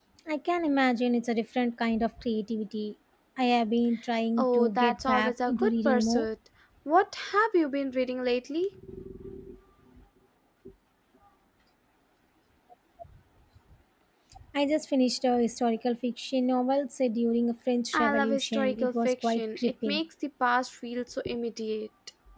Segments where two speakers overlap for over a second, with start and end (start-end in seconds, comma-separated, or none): 4.4-6.3, 17.9-20.0